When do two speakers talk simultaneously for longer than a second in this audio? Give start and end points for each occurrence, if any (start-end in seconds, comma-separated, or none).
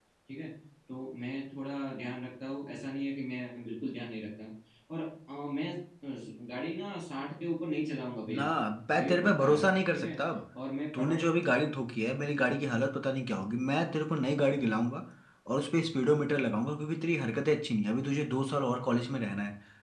8.9-10.2